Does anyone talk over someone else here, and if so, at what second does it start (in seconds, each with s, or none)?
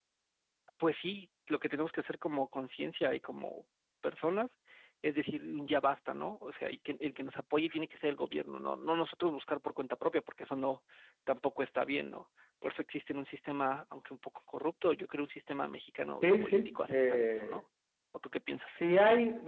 16.2 s